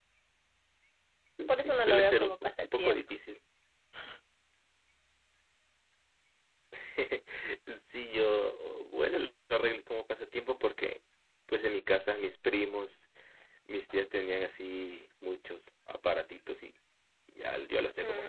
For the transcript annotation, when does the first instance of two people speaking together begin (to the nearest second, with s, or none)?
2 s